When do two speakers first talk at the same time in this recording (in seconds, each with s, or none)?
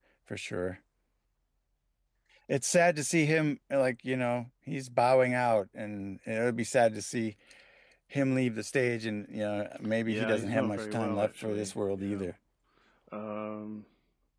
10.1 s